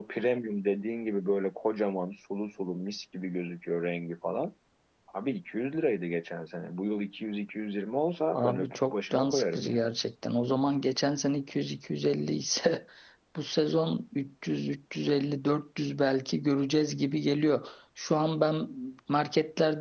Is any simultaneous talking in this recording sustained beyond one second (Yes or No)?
Yes